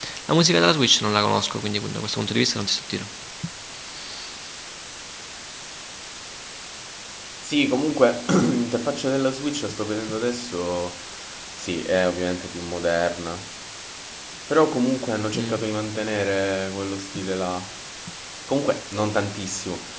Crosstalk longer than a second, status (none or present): none